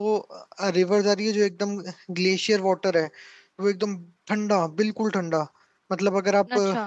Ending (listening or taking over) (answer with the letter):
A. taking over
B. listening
B